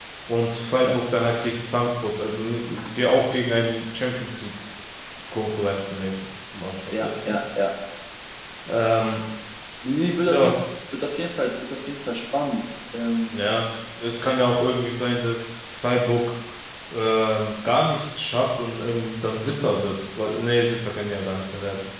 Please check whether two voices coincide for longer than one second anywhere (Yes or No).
No